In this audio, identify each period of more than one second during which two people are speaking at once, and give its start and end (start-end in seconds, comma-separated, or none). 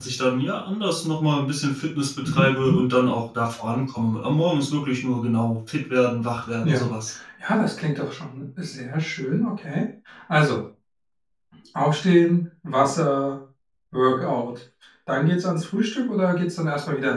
none